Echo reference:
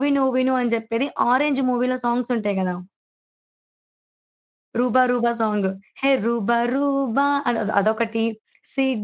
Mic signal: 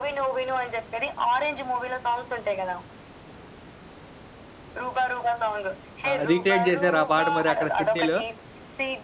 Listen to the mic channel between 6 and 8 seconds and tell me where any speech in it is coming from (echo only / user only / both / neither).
both